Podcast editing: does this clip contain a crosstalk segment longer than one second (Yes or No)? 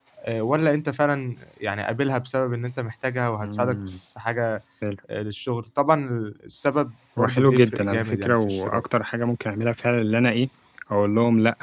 Yes